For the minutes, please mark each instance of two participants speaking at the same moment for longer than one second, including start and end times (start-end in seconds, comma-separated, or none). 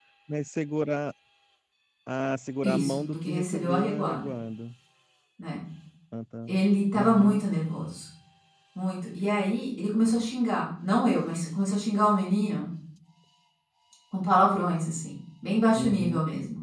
2.6-4.3